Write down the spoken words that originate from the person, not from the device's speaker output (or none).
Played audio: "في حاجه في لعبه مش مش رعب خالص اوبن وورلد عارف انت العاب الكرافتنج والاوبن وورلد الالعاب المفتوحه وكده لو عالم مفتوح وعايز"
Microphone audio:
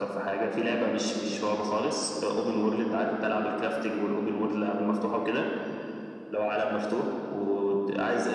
none